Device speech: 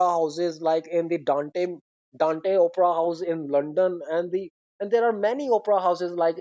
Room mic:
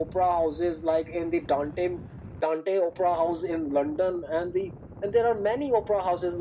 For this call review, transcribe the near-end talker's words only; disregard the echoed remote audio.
none

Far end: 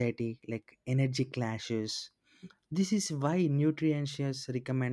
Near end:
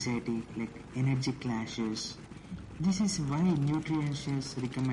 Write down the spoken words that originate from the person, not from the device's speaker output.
none

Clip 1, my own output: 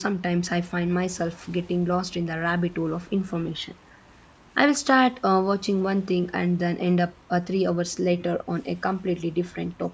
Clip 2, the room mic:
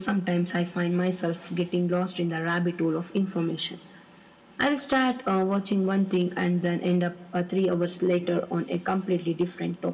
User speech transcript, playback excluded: none

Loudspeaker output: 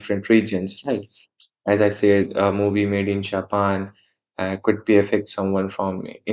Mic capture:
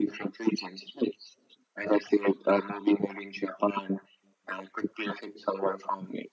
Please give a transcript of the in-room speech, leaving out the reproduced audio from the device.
none

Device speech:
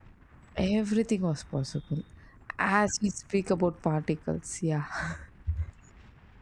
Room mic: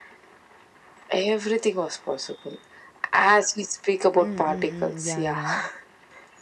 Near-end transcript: Mm, mm, mm. Yeah, yeah.

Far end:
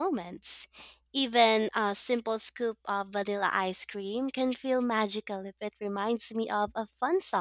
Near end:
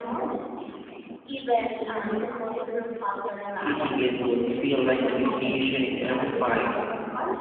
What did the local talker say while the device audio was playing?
Eating it would feel like a vacation in every bite.

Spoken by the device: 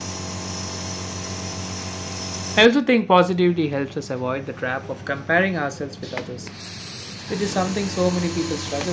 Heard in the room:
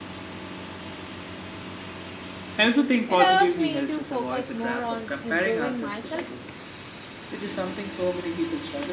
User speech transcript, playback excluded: It allows me to focus more on improving myself

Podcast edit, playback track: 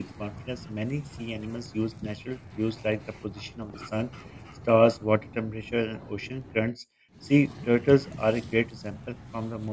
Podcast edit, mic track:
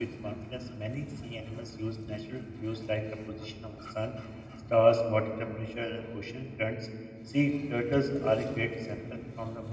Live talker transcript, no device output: none

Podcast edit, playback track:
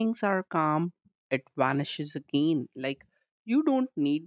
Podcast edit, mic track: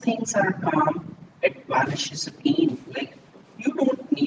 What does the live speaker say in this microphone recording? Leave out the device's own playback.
none

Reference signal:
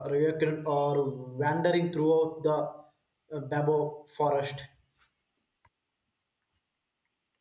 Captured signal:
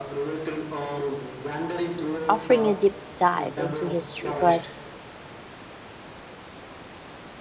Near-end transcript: offering a deep dive into history. But

